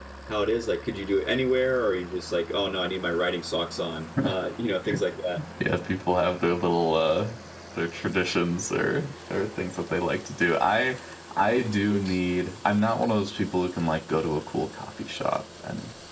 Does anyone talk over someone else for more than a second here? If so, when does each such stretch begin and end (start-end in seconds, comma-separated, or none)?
none